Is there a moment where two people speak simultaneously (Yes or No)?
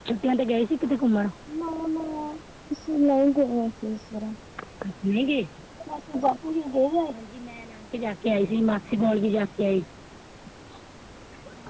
No